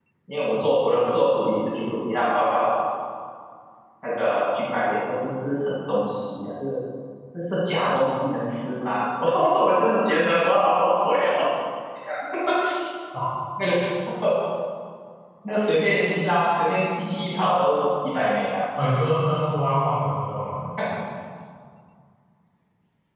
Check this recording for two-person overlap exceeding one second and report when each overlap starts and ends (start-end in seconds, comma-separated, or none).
none